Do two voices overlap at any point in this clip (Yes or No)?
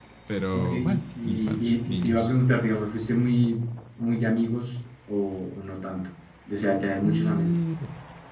Yes